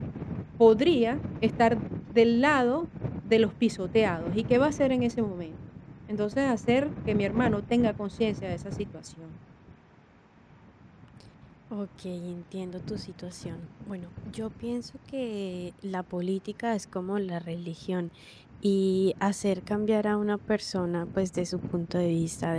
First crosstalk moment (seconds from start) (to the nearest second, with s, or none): none